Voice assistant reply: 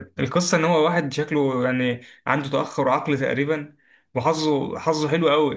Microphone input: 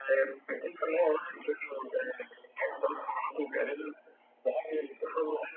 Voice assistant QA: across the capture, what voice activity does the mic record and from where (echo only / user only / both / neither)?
echo only